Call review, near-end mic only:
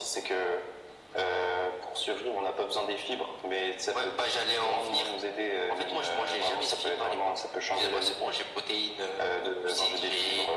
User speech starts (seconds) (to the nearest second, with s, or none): none